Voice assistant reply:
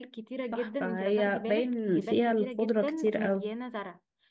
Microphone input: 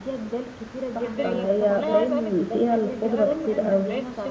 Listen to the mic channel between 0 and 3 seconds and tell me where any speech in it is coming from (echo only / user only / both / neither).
both